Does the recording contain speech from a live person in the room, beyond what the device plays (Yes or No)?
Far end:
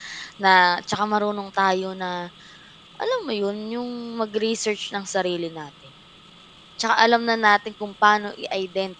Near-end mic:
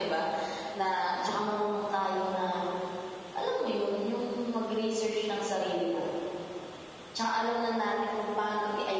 No